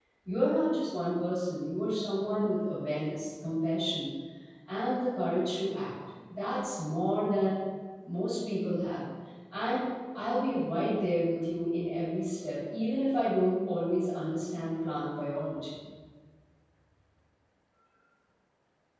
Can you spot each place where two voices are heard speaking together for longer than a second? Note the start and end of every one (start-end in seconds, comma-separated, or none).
none